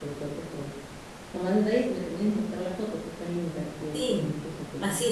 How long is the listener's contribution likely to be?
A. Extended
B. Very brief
A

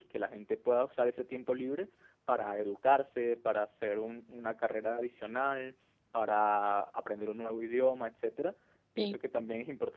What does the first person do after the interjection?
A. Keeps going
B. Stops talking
A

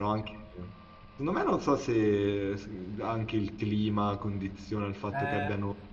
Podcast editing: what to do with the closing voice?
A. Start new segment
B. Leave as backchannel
A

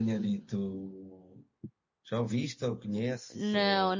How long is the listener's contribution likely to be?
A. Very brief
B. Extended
B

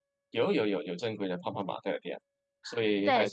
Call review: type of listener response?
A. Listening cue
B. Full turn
B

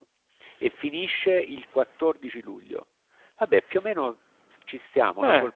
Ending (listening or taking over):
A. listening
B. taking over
B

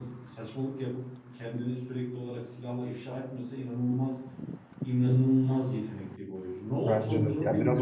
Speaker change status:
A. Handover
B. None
A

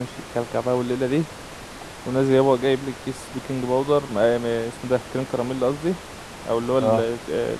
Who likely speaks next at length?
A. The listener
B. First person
B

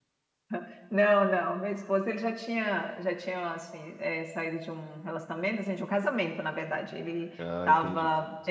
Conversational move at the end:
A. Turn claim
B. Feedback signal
B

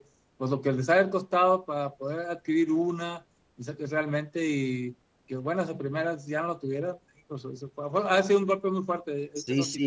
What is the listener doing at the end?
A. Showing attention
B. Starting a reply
B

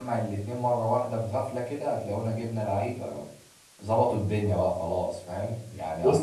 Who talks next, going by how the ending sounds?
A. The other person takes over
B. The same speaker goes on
B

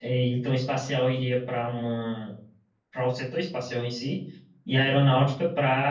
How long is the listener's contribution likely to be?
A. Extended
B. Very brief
B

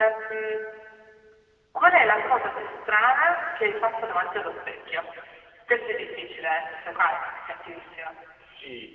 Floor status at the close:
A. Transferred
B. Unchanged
A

